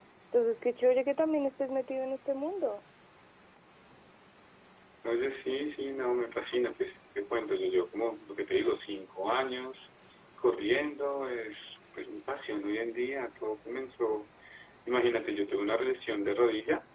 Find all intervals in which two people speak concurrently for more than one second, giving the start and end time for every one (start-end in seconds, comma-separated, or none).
none